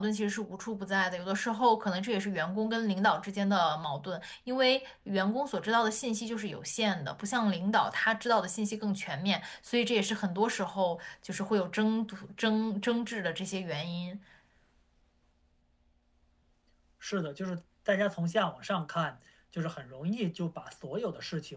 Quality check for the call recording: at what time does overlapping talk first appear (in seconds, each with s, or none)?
none